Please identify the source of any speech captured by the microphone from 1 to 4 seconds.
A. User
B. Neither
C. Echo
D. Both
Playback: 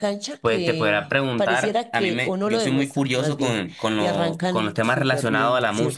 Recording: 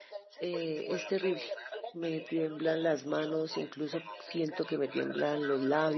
D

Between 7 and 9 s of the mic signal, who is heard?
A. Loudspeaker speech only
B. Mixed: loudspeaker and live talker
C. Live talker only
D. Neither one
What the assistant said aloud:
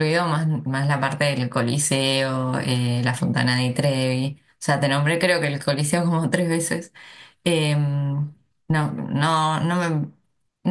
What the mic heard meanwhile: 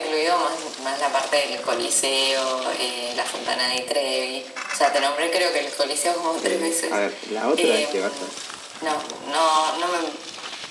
B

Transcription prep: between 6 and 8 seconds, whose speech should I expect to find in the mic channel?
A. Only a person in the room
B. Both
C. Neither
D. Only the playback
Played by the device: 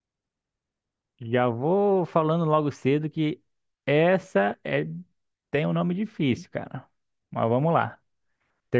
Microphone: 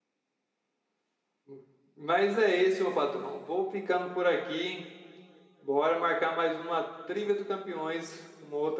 A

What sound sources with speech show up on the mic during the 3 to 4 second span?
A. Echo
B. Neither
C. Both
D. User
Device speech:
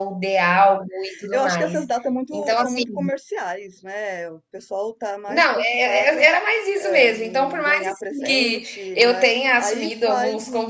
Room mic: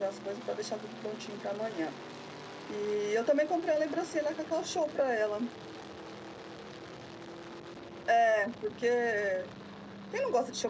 D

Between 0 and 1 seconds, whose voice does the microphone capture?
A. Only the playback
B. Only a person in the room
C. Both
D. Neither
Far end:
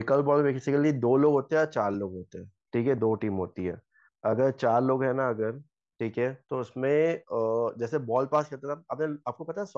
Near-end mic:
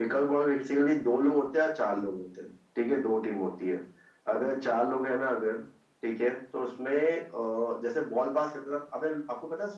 A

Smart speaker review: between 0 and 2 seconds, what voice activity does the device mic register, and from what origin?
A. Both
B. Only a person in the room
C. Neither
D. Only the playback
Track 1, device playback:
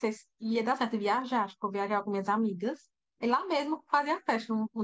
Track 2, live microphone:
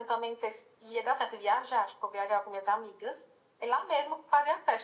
D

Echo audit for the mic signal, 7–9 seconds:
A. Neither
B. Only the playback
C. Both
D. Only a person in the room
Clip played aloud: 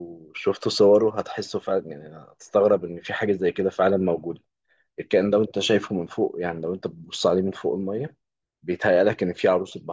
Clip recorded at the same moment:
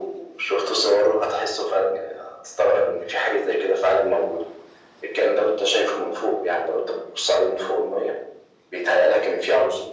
B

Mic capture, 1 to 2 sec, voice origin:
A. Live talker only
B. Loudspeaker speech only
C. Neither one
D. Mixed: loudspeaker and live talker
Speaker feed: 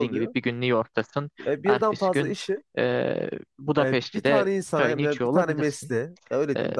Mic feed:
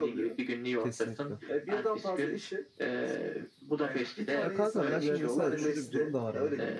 D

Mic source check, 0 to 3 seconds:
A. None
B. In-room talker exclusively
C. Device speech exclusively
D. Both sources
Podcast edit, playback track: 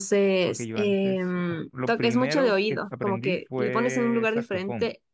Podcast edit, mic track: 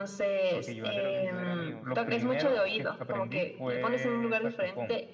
D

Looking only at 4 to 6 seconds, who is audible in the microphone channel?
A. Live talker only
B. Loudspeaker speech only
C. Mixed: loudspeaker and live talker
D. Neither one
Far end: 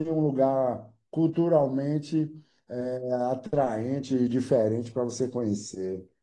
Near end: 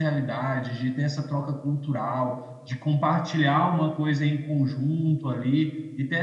A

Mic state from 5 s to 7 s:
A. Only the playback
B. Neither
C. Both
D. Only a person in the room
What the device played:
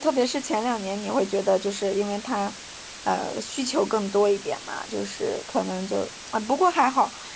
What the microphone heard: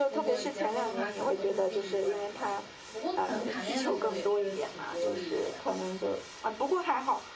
C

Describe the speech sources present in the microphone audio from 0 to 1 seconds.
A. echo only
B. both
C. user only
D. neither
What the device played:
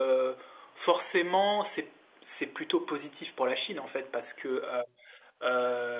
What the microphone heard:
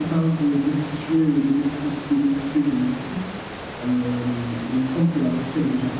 C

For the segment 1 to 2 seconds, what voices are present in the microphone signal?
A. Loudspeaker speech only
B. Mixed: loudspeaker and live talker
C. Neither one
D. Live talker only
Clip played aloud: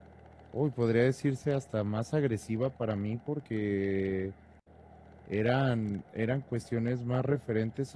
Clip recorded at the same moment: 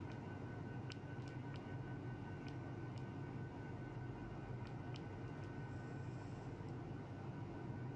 C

